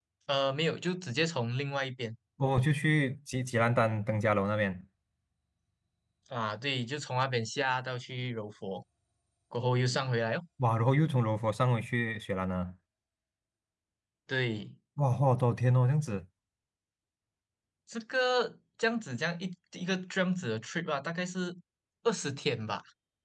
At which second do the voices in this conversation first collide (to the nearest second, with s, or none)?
none